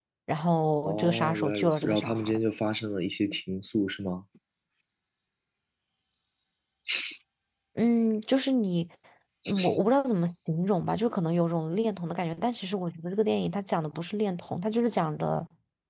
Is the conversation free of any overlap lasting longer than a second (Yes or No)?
No